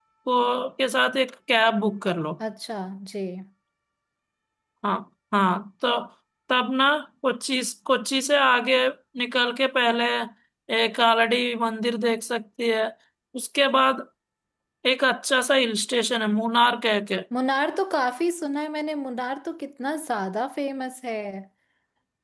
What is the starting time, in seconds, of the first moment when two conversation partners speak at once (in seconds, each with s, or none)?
none